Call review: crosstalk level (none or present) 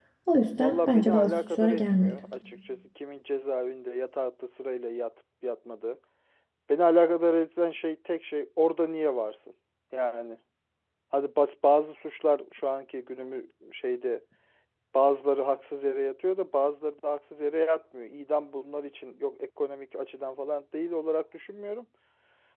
present